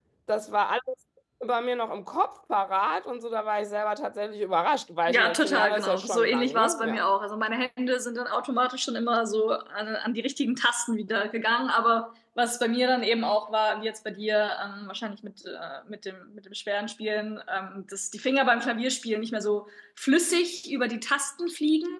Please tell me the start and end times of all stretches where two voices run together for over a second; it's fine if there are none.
5.1-7.0

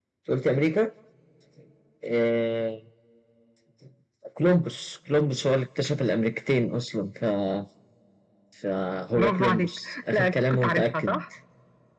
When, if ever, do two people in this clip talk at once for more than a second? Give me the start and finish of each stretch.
9.2-11.2

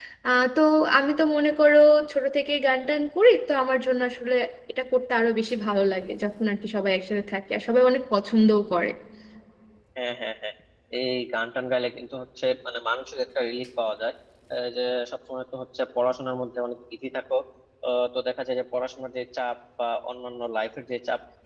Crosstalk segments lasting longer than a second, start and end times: none

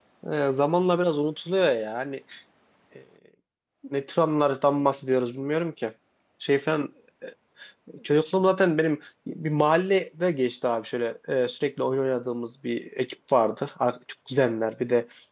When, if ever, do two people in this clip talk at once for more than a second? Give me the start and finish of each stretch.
none

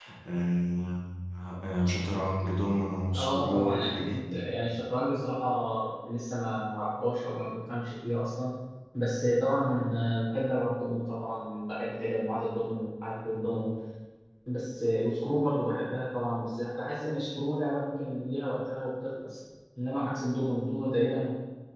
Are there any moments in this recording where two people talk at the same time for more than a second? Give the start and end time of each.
3.1-4.5

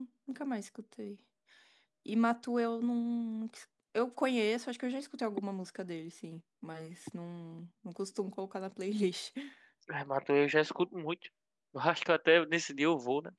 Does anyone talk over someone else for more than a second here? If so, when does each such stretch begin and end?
none

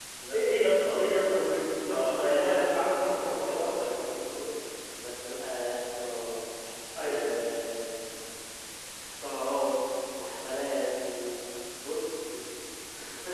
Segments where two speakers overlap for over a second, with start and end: 1.9-4.2

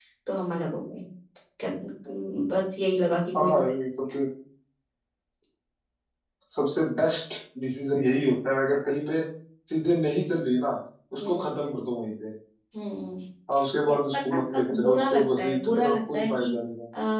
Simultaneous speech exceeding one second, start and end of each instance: 13.9-16.6

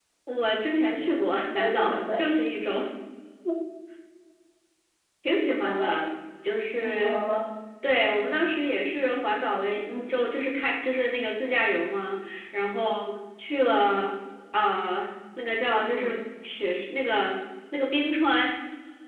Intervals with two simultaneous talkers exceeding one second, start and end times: 0.8-2.3

